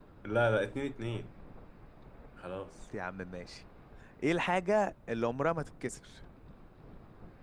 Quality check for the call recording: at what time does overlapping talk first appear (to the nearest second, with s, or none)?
none